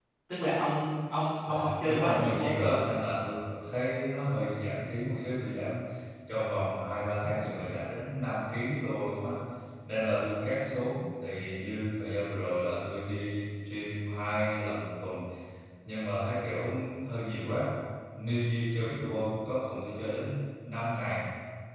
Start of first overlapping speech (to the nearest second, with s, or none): 1 s